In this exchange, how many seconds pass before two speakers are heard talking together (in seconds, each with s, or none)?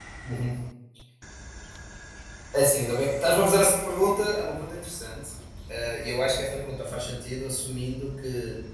none